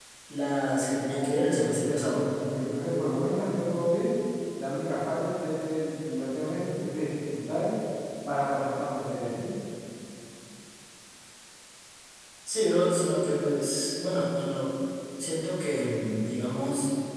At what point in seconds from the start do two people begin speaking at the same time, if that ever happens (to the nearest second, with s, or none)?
1 s